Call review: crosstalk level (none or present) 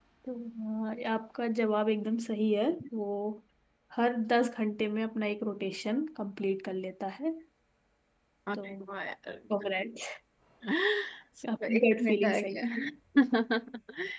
present